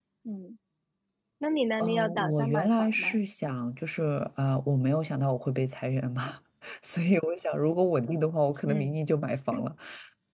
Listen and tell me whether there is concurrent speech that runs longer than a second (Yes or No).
Yes